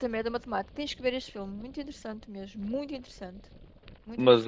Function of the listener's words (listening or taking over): taking over